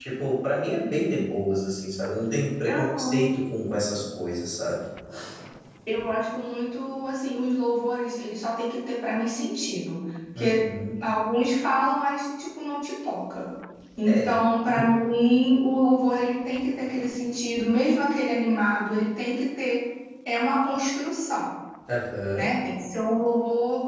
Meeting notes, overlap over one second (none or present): none